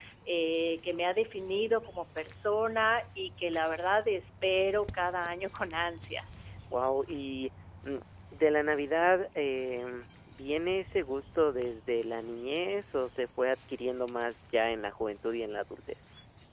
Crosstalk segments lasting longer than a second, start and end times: none

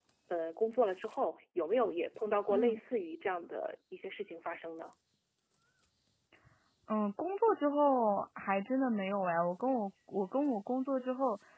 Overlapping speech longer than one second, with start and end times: none

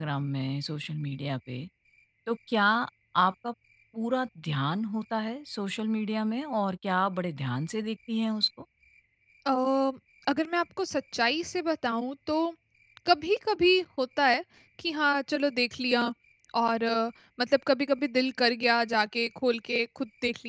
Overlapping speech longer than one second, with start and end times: none

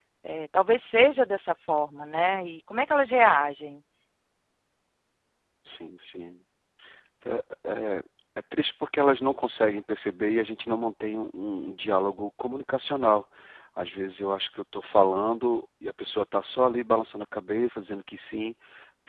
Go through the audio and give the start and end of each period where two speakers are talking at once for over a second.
none

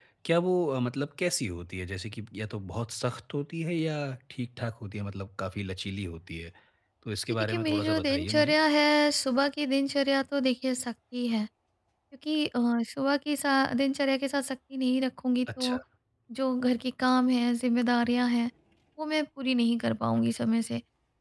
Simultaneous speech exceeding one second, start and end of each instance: 7.3-8.5

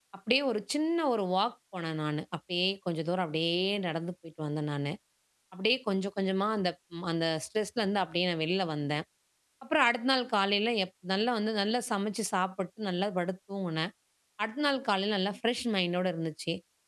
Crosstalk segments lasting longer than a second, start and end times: none

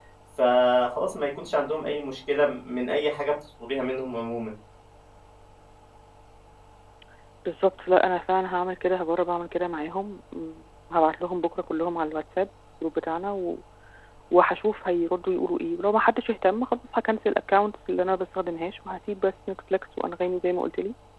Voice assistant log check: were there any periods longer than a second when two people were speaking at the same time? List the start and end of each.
none

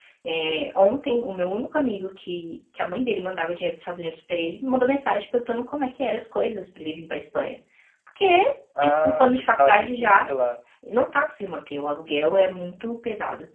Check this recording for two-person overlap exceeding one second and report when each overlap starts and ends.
8.8-10.1

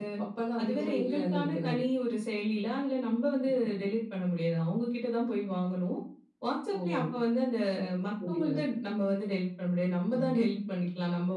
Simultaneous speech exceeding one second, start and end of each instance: 0.6-1.8

